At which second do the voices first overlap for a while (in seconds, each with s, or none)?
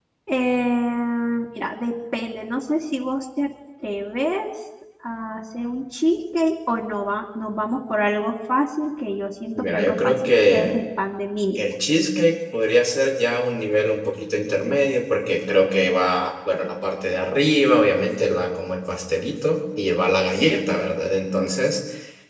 9.6 s